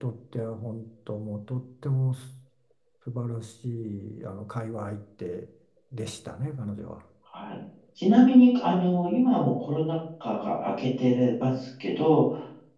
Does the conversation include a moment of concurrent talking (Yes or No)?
No